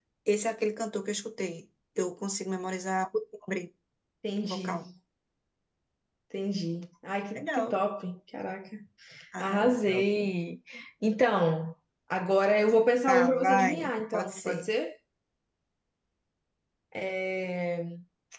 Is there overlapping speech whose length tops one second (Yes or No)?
Yes